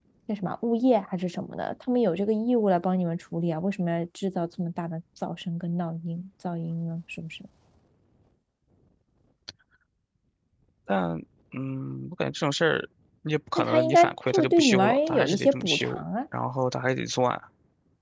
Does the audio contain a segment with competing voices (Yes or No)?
Yes